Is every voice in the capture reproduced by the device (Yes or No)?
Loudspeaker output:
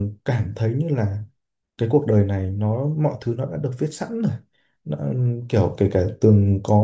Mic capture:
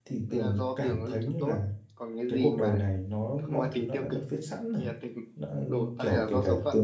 No